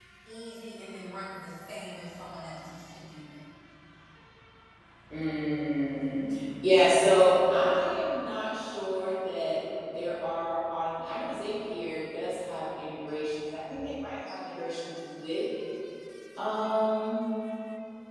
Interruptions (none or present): none